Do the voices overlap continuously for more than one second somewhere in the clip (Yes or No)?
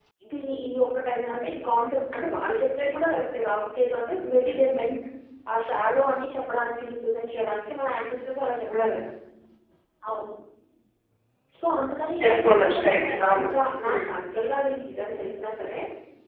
Yes